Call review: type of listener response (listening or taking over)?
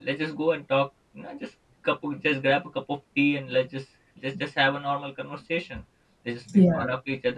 listening